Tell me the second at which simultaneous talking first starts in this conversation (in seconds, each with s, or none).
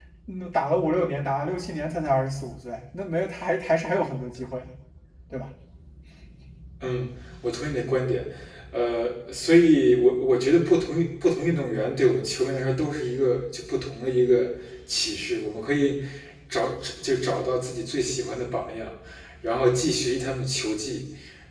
none